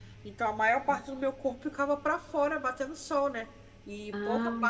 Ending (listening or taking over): listening